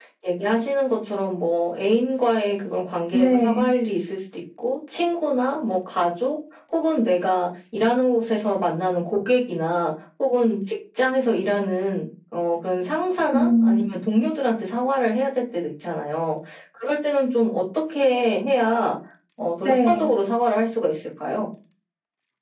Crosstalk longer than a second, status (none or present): none